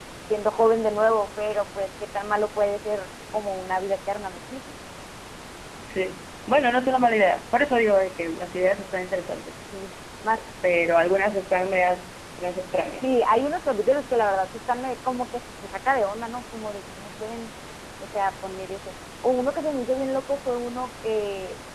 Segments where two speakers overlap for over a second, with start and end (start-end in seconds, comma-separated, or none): none